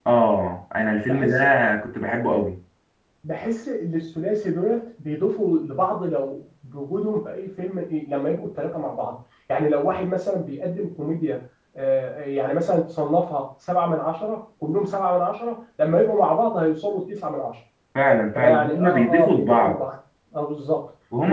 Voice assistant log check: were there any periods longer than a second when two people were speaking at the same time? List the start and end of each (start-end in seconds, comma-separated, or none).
18.3-19.8